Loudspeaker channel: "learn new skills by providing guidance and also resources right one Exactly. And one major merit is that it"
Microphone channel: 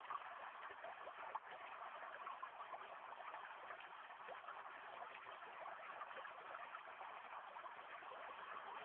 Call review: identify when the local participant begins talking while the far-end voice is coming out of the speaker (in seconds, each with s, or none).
none